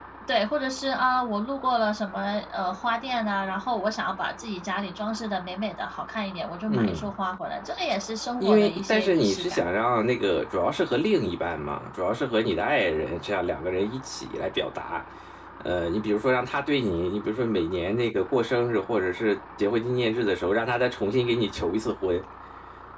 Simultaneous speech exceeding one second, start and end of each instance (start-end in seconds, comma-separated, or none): 8.4-9.6